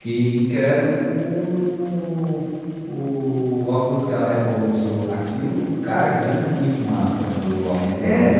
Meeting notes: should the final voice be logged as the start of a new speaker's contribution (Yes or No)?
Yes